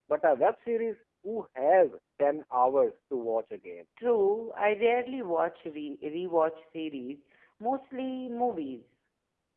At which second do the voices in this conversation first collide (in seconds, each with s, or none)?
none